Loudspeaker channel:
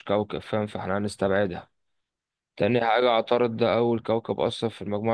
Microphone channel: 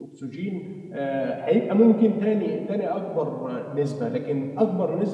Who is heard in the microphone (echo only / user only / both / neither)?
user only